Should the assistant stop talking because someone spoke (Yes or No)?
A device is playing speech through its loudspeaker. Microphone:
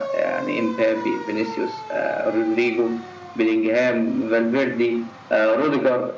No